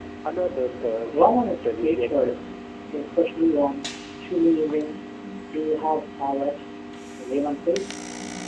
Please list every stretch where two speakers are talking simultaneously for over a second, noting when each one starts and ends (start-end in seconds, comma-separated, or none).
1.1-2.5